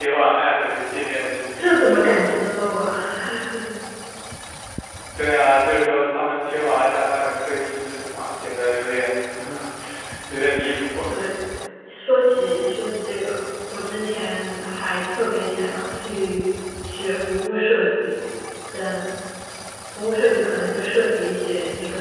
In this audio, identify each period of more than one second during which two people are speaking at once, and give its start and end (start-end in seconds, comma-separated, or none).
none